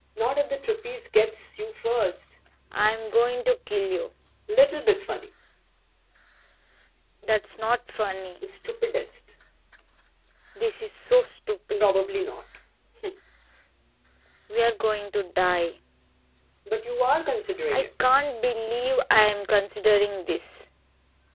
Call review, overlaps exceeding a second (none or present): none